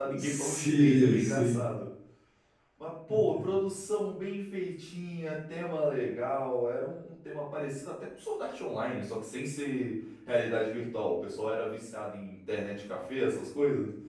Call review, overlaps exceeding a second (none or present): present